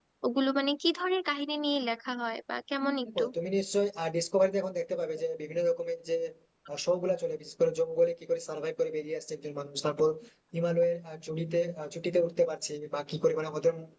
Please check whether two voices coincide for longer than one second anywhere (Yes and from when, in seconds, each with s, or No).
No